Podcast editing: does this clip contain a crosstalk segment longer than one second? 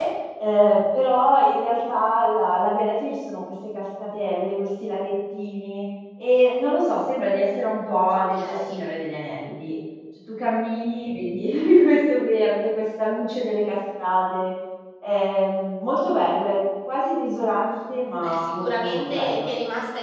Yes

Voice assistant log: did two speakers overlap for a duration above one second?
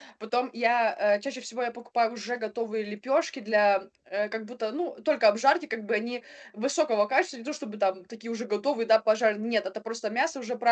No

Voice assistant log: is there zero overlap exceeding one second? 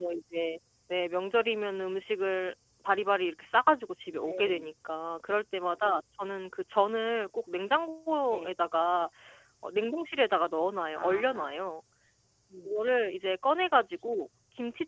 Yes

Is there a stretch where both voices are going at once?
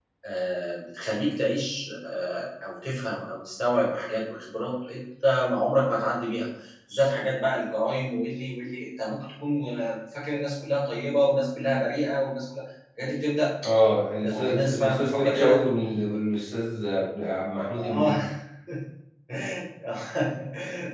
Yes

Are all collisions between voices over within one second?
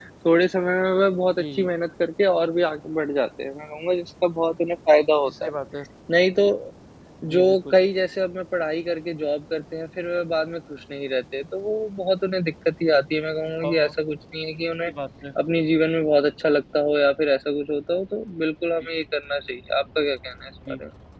Yes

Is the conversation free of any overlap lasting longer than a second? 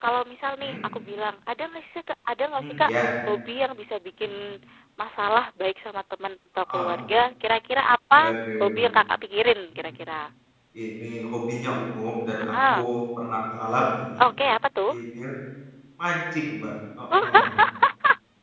Yes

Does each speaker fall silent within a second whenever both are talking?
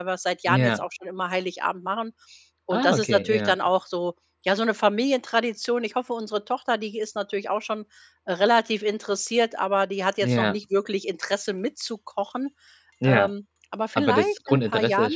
No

